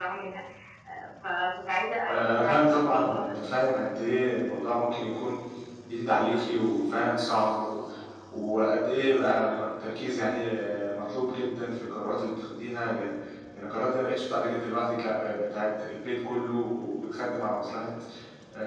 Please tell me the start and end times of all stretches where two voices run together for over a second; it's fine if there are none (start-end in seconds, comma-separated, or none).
2.1-3.3